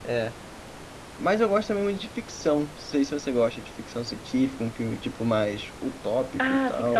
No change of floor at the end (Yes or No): No